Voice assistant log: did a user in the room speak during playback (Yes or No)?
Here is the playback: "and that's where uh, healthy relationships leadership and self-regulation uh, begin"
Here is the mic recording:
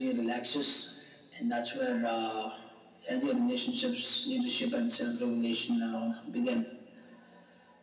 No